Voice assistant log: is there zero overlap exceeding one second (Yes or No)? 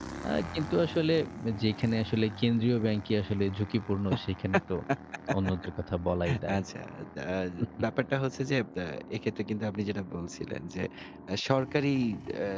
Yes